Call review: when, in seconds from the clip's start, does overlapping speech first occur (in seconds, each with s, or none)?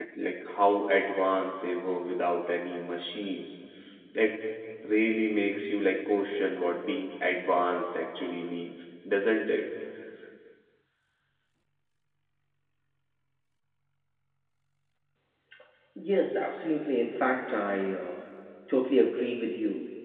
none